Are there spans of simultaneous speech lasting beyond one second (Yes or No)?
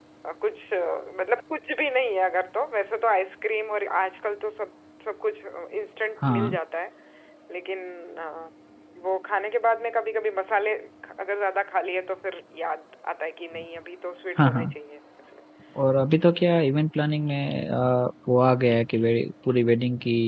No